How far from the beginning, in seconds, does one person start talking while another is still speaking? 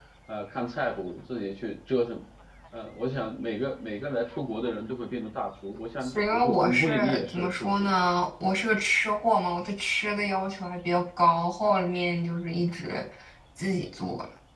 6 s

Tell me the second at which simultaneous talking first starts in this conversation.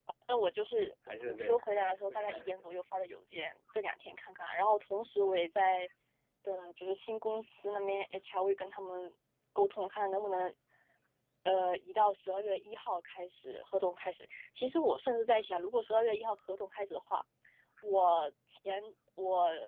1 s

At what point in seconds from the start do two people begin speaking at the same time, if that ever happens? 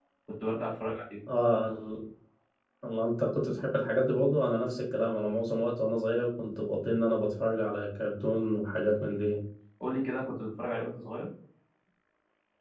none

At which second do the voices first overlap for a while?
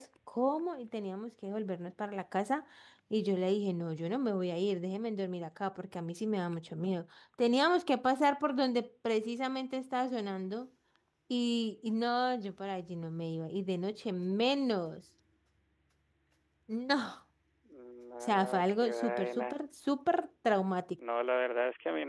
18 s

